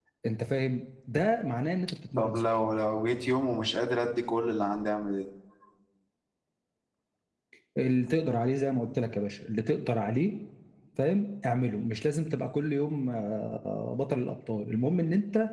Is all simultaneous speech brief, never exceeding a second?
Yes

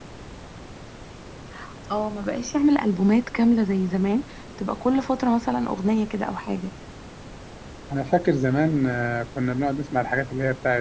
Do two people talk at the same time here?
No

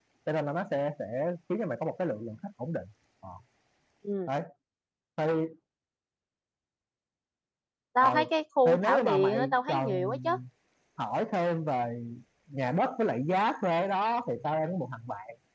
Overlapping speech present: Yes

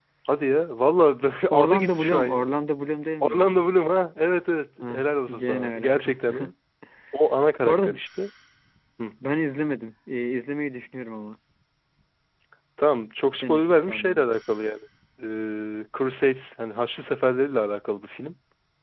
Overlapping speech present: Yes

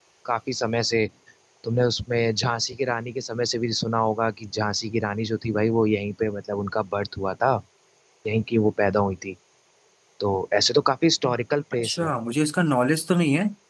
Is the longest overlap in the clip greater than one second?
No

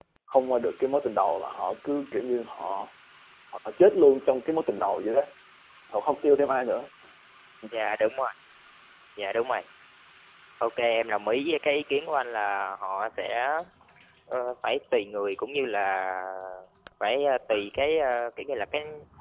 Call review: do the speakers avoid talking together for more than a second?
Yes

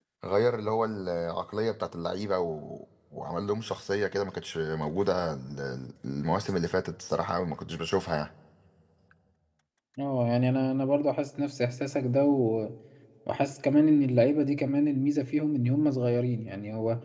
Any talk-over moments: No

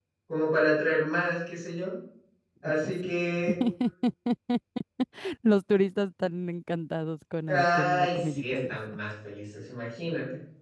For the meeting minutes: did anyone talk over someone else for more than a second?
Yes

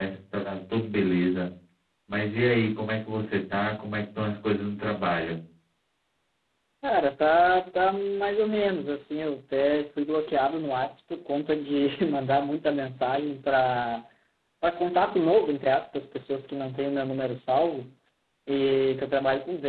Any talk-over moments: No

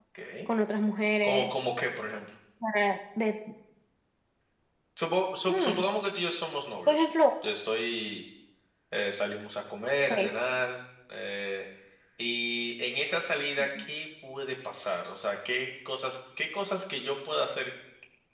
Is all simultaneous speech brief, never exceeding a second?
Yes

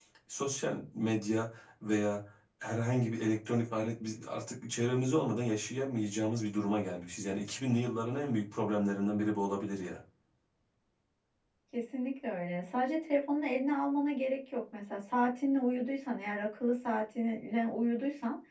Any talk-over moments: No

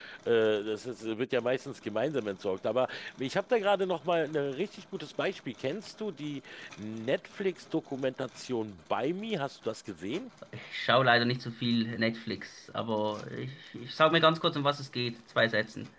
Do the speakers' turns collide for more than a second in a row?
No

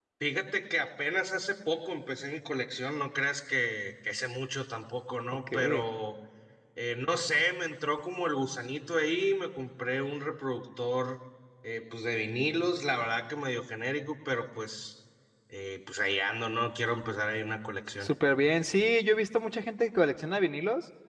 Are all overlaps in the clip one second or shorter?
Yes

